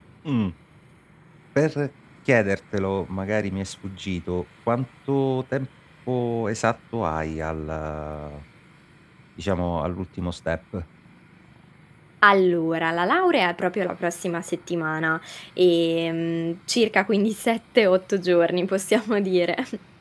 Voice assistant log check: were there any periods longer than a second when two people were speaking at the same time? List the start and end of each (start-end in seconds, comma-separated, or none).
none